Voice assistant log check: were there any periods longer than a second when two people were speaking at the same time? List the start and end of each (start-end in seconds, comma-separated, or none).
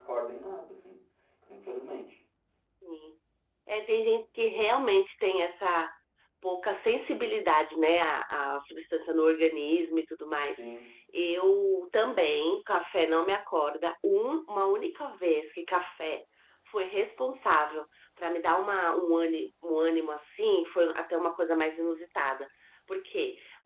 none